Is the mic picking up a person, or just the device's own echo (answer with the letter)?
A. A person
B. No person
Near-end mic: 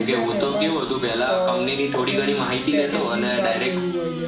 A